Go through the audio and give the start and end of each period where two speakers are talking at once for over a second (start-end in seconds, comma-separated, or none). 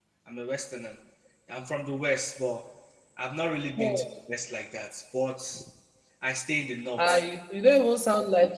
none